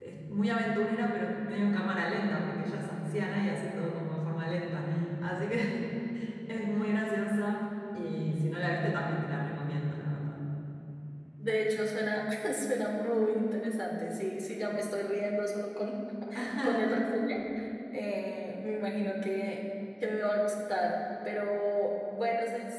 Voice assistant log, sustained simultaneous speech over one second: none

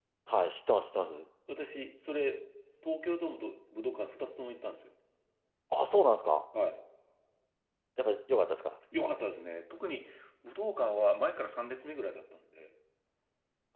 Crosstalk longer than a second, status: none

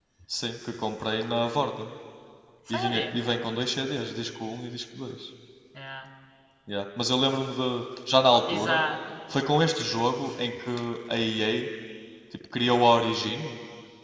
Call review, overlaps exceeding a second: none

